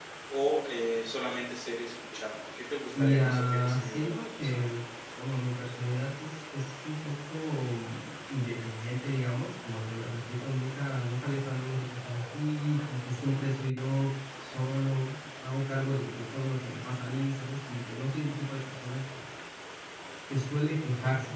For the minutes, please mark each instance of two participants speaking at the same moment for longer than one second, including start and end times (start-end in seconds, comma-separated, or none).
2.9-4.6